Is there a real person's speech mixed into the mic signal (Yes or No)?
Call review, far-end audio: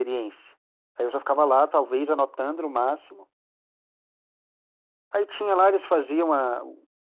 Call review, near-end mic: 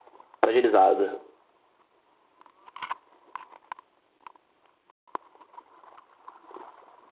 Yes